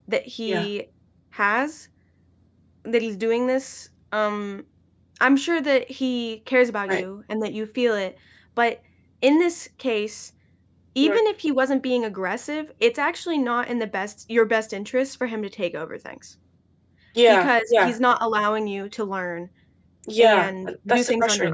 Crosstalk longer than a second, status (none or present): present